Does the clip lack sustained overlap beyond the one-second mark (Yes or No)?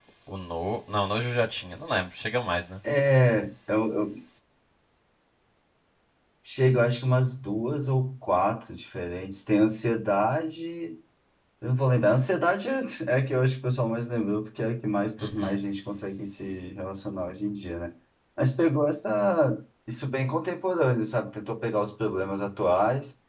Yes